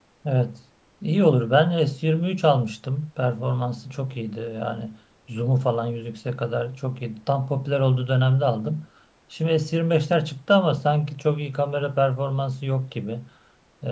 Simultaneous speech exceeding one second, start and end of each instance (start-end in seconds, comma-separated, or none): none